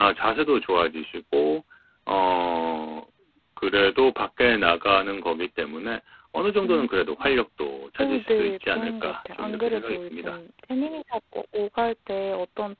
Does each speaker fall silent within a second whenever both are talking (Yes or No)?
No